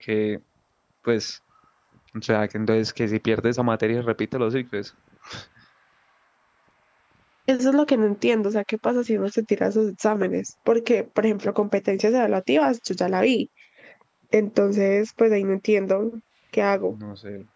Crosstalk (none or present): none